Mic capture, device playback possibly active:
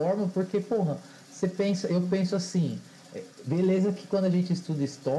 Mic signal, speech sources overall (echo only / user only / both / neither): echo only